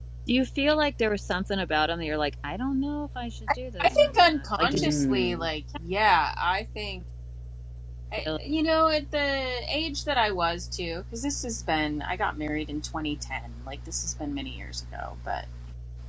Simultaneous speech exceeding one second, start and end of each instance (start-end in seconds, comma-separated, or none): 3.8-5.5